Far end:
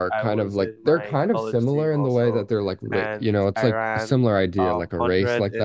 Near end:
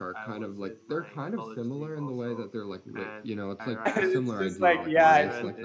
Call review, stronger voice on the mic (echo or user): user